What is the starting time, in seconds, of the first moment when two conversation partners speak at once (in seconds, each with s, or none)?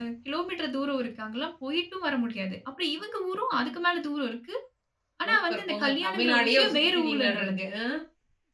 5.2 s